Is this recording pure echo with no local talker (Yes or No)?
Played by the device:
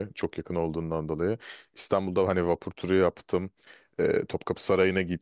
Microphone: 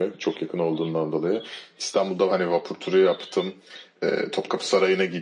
Yes